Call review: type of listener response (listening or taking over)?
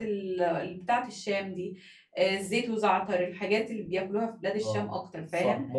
taking over